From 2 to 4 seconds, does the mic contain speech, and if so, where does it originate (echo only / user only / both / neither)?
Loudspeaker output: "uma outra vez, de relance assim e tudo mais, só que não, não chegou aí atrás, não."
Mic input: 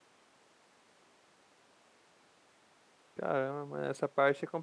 user only